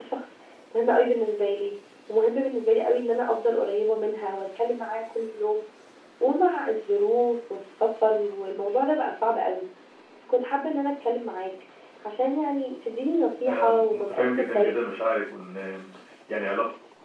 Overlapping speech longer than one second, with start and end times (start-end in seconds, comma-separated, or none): 13.4-14.7